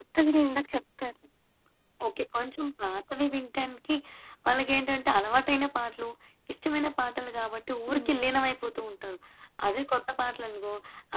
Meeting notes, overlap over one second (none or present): none